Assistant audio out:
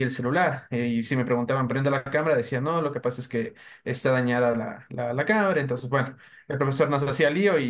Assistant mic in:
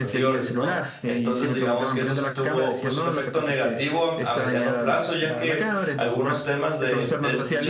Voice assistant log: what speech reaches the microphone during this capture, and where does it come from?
both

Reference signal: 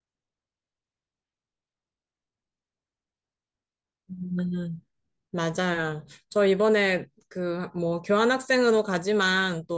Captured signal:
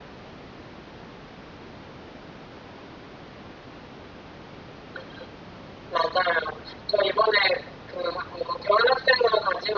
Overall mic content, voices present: echo only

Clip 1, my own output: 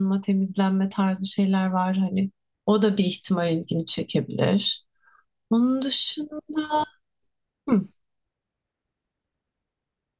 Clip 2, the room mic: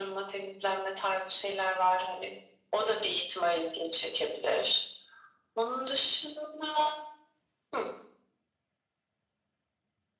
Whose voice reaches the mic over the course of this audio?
echo only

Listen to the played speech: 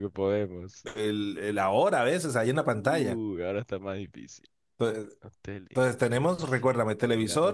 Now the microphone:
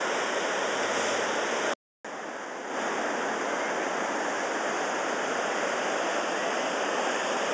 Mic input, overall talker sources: neither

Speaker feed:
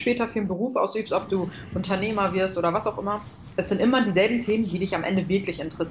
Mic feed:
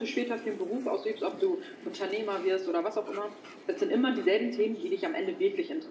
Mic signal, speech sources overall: echo only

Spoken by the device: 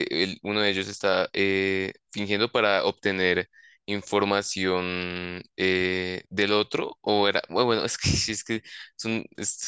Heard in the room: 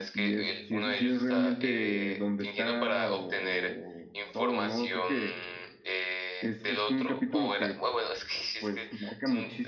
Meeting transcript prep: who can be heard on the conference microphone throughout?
both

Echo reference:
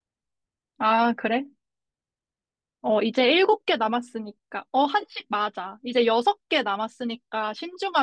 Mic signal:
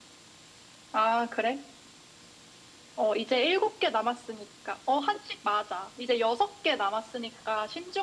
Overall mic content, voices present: echo only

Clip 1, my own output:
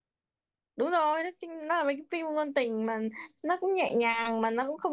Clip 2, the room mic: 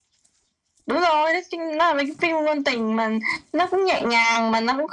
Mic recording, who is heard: echo only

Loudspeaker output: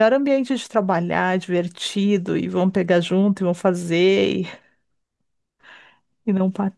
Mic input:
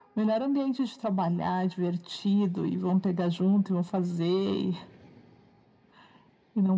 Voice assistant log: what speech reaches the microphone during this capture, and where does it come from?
echo only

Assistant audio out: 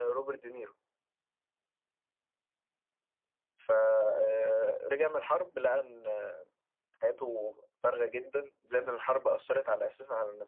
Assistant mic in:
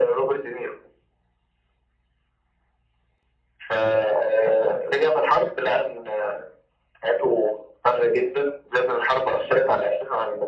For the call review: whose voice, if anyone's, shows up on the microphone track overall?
echo only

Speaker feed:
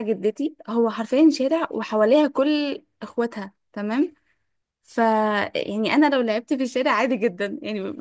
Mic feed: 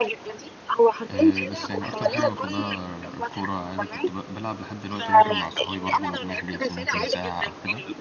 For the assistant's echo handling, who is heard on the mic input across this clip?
both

